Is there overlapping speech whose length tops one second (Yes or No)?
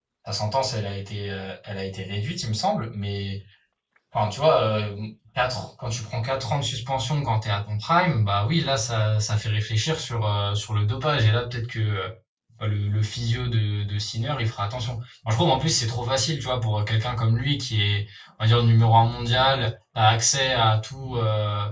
No